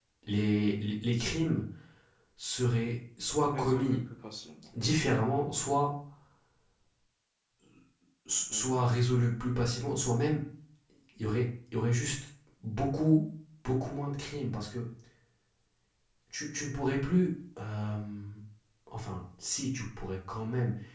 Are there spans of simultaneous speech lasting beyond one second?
No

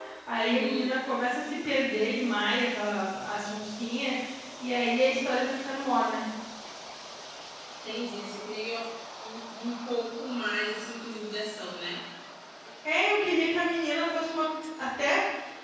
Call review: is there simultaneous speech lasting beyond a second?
No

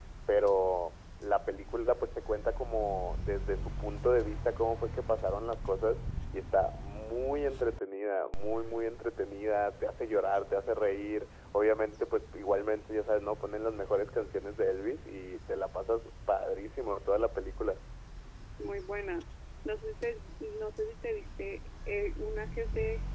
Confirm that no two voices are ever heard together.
Yes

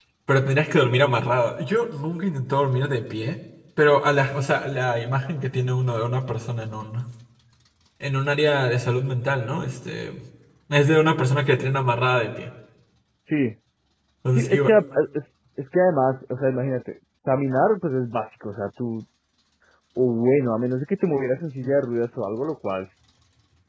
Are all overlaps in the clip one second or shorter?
Yes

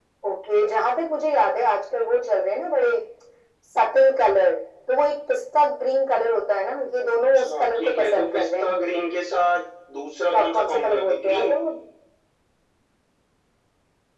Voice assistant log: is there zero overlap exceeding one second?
No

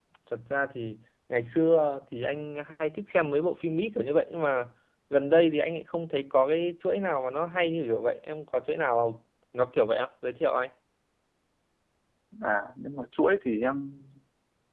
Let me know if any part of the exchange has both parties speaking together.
No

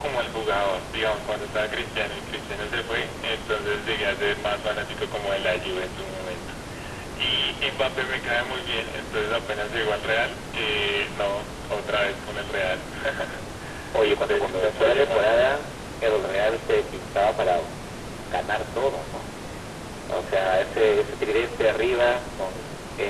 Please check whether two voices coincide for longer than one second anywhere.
Yes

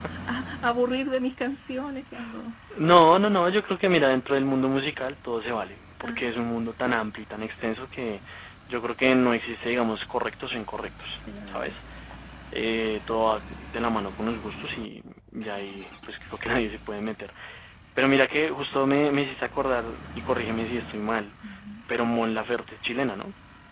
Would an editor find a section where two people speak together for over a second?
No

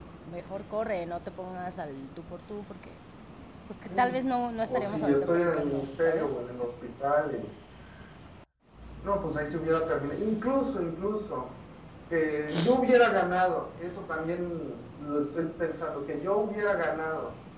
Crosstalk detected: Yes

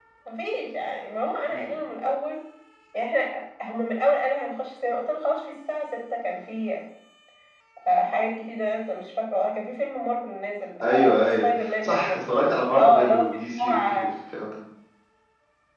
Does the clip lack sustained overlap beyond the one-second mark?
No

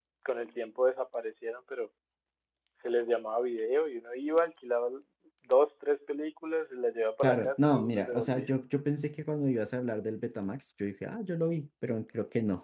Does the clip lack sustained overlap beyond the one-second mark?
No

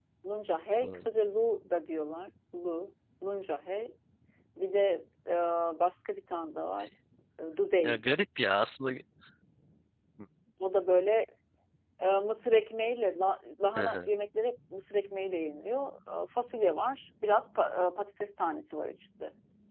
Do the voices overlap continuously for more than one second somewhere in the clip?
No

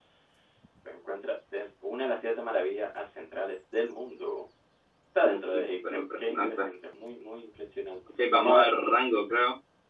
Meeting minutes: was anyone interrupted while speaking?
Yes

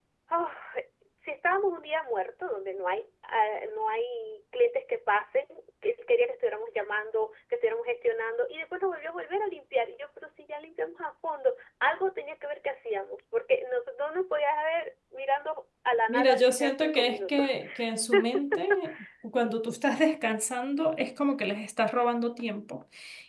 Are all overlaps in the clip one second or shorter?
No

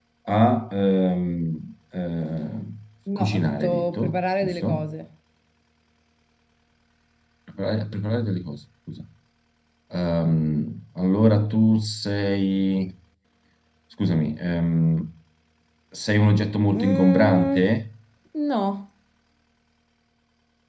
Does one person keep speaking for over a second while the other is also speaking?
Yes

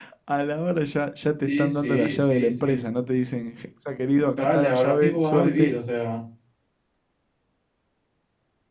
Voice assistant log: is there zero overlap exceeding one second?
No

